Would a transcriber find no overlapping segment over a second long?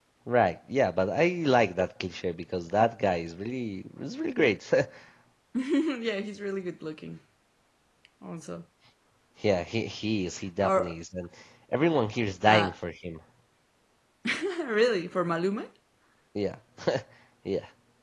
Yes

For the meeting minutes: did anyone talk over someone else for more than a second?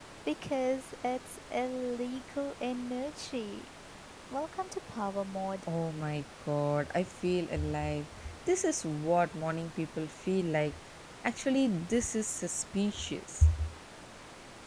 No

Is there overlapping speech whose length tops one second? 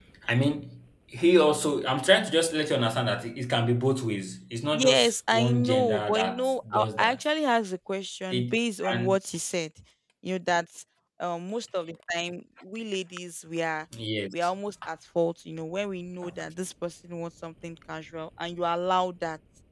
Yes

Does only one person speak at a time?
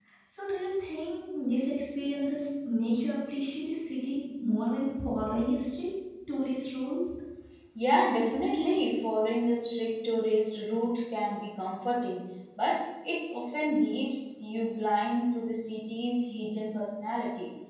Yes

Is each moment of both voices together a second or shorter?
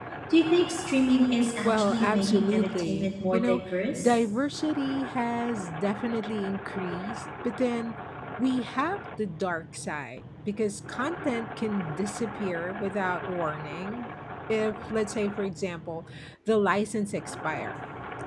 No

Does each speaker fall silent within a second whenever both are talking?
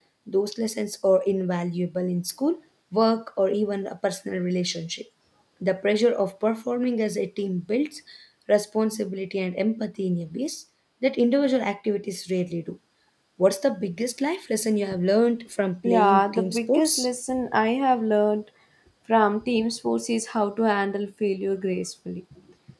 No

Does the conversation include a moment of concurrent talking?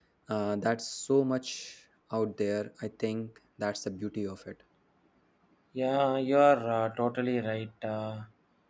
No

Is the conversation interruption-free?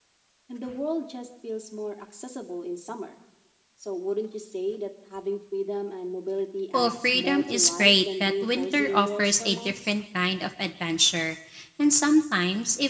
No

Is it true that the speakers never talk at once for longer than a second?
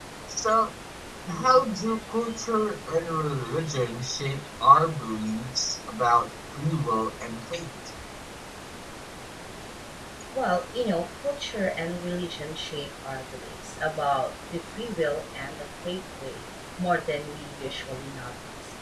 Yes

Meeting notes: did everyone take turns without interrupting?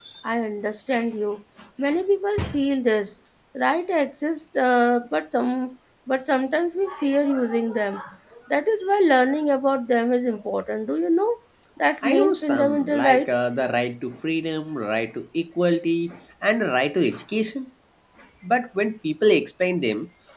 No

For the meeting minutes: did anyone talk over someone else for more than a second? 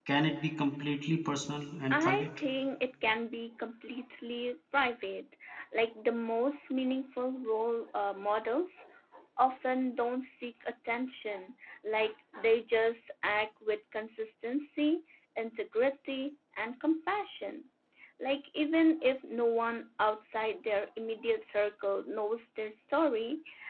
No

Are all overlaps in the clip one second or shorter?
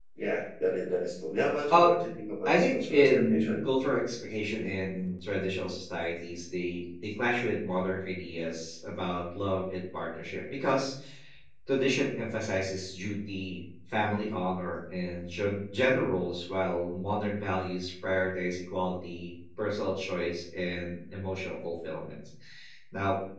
No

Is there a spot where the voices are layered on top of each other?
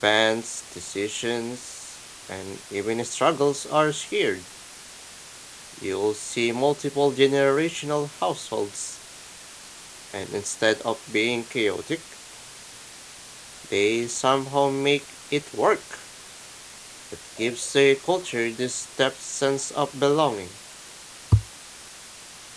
No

